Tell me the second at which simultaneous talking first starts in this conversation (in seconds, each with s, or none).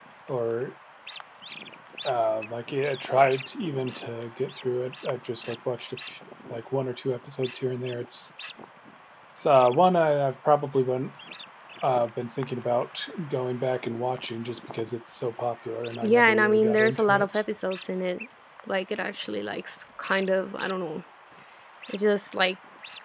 16.0 s